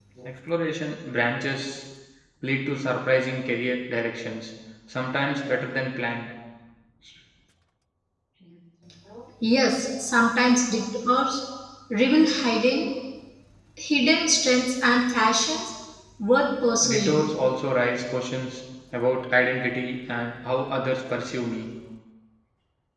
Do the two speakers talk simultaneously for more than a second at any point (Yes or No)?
No